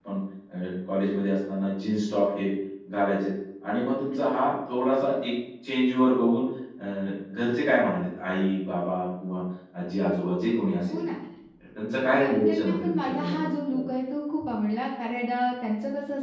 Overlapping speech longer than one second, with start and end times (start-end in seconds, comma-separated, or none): 12.2-13.5